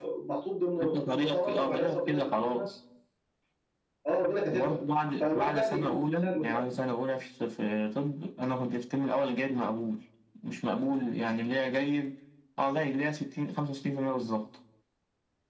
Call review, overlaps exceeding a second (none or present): present